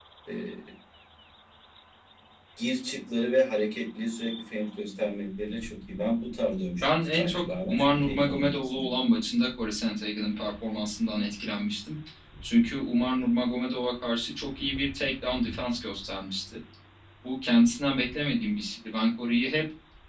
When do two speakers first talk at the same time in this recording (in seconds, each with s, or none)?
6.8 s